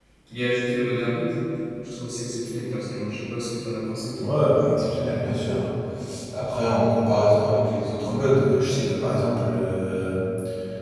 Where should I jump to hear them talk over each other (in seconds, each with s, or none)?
none